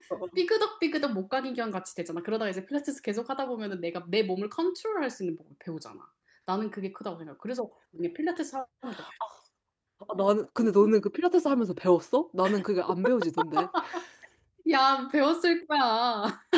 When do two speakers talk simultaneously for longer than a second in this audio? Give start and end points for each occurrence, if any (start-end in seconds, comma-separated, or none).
none